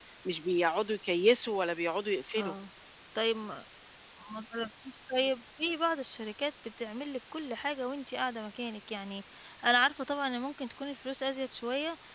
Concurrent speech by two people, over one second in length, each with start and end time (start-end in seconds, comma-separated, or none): none